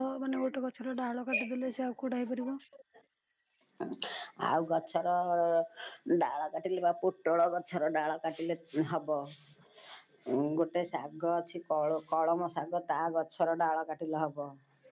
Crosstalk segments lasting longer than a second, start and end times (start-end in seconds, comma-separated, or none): none